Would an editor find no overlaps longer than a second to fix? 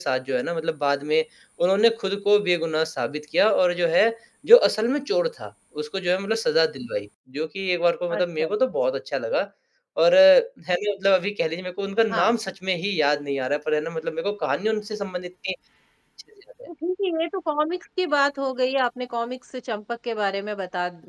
Yes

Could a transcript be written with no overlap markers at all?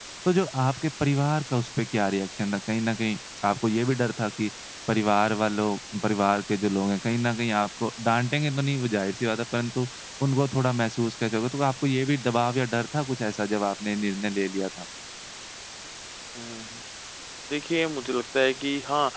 Yes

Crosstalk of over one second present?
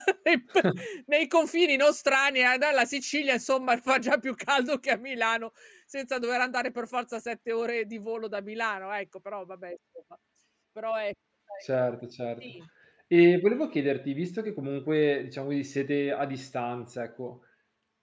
No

